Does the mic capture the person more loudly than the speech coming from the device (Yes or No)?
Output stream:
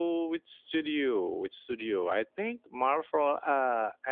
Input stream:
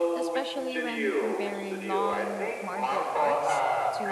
No